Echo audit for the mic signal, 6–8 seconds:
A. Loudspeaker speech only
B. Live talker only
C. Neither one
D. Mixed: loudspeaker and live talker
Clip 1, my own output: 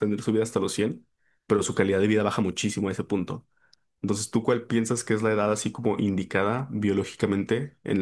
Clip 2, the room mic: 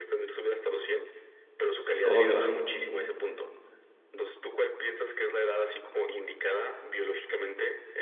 A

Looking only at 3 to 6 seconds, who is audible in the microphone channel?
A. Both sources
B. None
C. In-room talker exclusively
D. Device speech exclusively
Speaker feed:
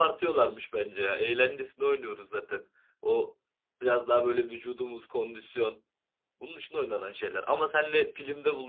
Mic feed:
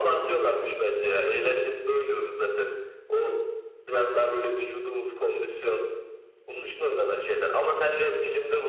D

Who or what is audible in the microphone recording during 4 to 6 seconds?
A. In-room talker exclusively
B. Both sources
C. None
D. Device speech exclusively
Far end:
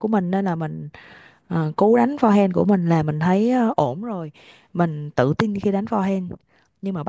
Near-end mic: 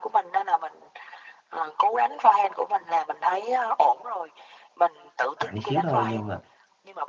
B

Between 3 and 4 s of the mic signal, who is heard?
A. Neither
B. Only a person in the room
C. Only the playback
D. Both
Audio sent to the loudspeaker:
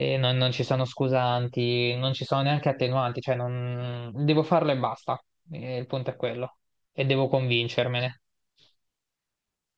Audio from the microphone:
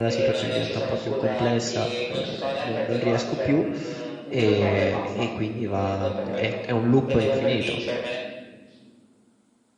D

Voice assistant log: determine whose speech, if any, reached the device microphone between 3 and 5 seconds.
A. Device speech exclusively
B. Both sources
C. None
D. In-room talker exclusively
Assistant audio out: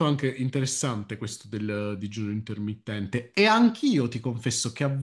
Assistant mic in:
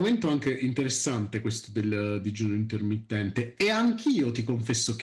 A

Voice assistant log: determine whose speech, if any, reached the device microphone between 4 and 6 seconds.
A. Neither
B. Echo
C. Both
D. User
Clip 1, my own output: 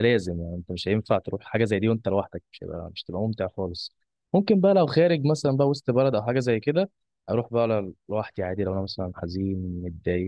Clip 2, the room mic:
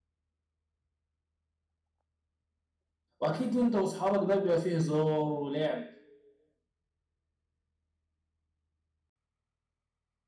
D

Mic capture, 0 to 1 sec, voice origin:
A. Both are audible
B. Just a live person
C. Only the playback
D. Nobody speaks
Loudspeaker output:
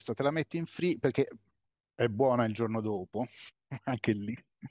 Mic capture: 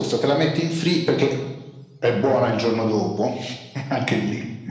C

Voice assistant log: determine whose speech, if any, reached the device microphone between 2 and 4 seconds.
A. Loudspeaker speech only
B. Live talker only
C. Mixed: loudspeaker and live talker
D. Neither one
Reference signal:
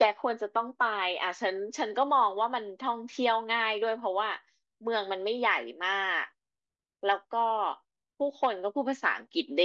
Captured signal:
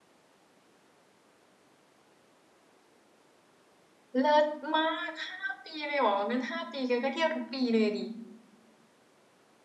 D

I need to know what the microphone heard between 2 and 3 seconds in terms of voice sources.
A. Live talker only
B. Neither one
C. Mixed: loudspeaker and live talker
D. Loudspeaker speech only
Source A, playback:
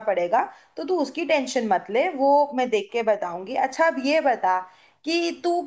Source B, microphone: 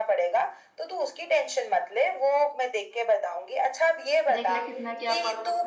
D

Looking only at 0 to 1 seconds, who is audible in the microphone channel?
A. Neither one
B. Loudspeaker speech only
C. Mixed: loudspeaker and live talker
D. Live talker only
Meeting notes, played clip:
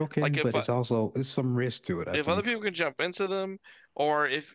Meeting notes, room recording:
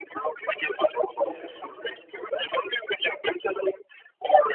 B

